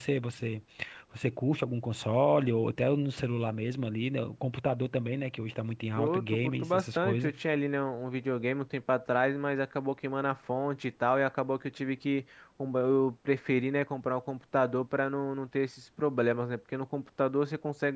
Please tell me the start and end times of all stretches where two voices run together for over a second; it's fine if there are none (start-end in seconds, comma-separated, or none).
6.0-7.3